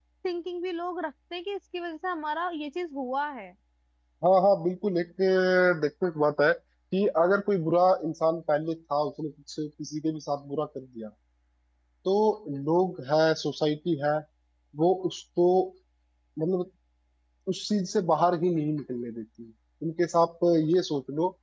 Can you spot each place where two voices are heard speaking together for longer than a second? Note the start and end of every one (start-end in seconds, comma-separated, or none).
none